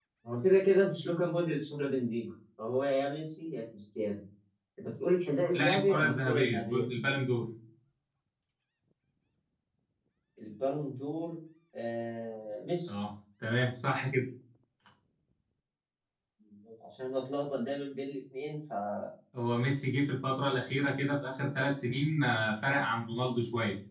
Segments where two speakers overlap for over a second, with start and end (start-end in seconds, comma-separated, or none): 5.5-6.8